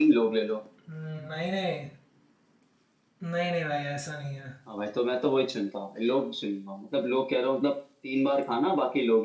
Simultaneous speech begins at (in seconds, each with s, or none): none